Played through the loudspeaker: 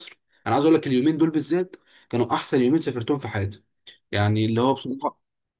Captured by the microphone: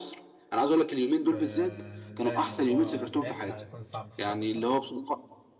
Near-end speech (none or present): present